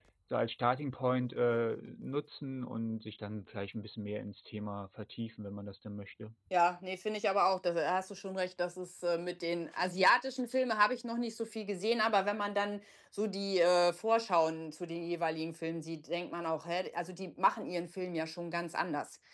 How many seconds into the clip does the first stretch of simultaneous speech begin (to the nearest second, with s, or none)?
none